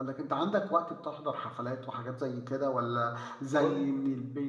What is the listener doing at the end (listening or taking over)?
listening